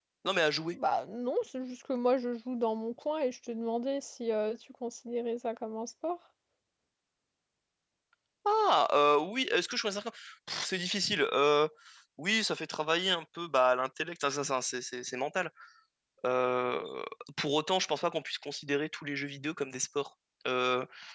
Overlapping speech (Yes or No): No